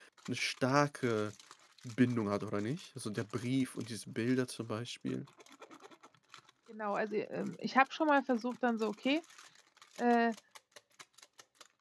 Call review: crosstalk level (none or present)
none